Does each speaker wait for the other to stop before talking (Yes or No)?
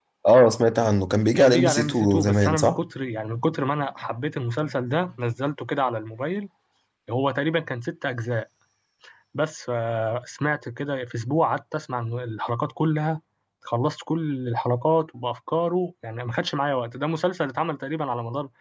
No